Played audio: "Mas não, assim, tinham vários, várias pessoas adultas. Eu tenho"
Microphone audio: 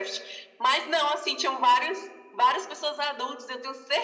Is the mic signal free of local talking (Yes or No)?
Yes